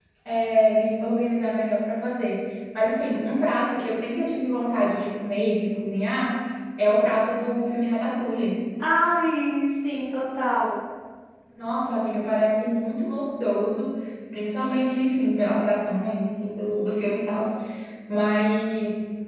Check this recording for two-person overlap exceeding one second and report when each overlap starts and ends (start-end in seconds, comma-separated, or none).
none